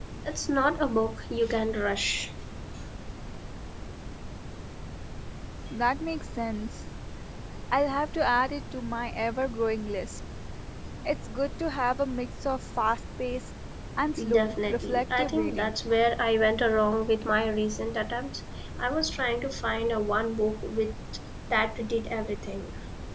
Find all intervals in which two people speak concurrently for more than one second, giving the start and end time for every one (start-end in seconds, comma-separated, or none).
14.3-15.7